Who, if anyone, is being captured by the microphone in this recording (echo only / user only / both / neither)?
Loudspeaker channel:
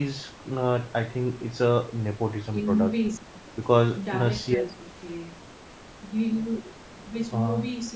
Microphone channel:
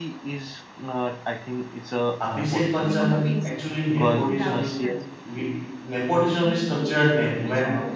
both